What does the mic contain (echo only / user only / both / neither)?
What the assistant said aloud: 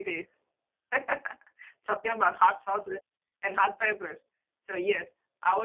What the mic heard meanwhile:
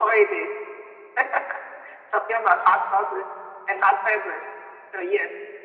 echo only